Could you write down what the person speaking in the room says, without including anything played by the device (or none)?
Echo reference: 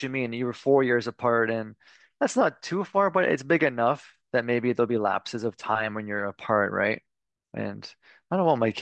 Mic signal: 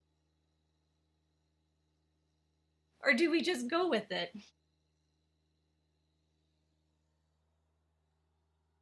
or do we just go with it?